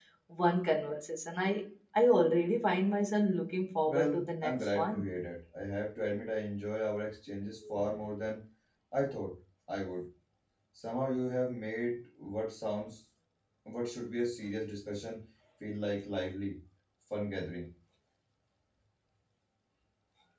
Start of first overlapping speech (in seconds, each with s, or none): 3.9 s